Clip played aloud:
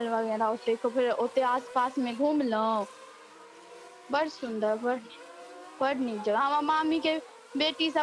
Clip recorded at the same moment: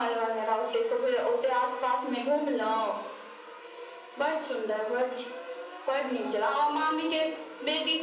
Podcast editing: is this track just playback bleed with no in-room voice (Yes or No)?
Yes